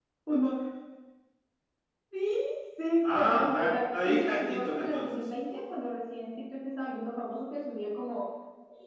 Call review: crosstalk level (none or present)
present